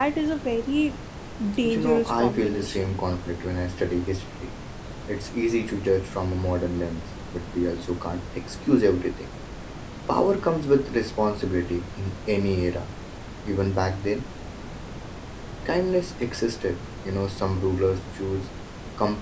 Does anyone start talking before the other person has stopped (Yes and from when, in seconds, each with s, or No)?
Yes, from 1.6 s